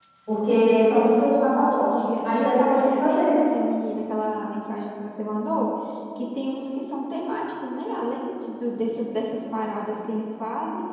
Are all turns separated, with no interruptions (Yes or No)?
No